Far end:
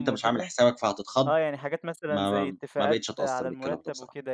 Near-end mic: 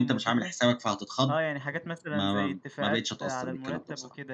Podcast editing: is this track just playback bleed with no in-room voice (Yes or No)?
Yes